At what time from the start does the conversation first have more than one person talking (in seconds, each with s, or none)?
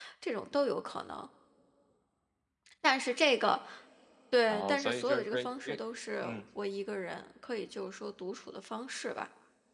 4.5 s